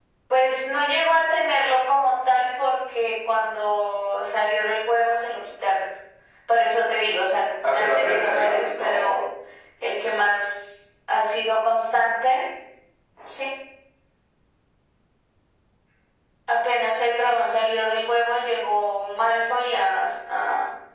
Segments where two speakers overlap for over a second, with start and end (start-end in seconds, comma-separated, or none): 7.7-9.1